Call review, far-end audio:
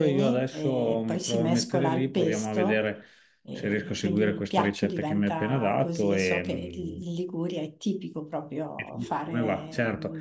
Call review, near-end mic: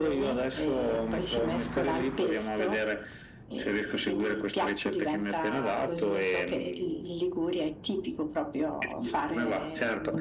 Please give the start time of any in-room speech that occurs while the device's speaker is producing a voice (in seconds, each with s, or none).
none